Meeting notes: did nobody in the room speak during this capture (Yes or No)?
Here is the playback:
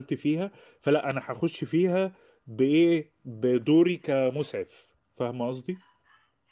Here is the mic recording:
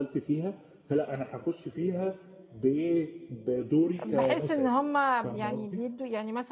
No